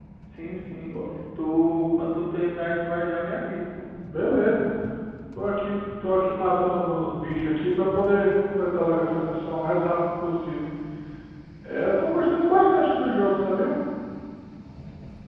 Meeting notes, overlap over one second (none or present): none